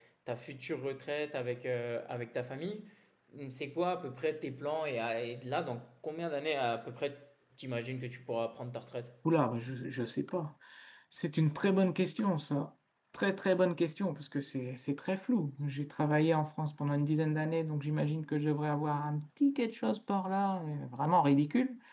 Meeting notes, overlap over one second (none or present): none